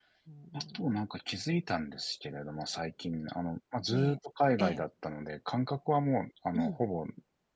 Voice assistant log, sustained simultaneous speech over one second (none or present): none